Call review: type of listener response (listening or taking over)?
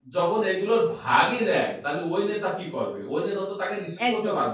listening